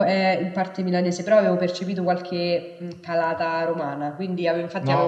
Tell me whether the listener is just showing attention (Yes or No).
No